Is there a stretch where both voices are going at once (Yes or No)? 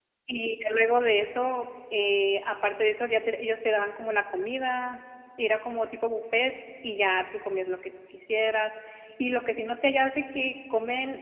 No